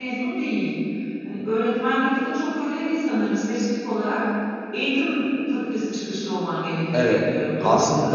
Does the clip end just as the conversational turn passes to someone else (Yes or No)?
Yes